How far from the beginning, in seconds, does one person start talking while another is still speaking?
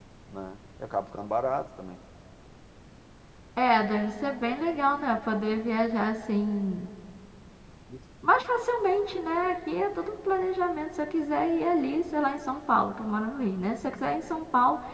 none

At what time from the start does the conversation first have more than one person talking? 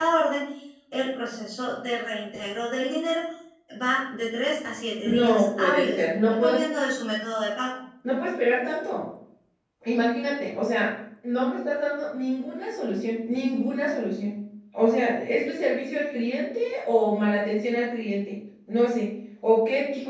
5.0 s

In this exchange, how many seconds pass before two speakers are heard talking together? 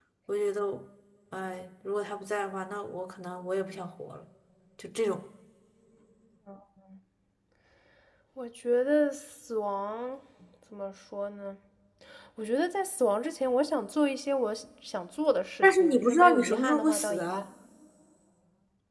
15.6 s

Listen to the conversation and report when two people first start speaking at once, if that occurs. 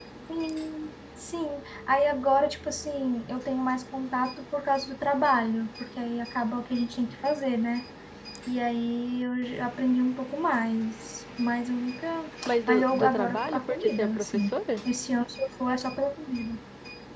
12.5 s

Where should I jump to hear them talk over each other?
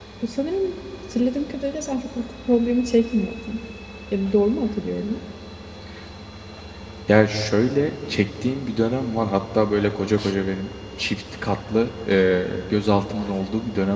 none

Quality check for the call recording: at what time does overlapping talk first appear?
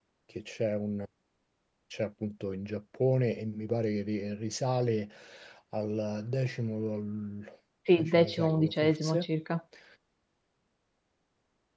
8.0 s

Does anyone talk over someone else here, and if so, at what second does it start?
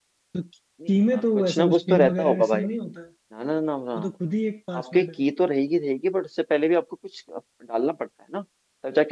0.9 s

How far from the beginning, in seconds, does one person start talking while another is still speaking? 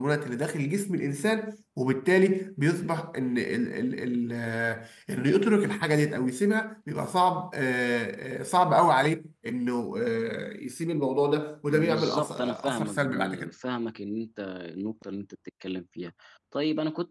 11.7 s

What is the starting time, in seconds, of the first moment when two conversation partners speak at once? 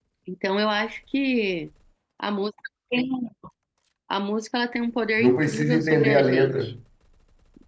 5.2 s

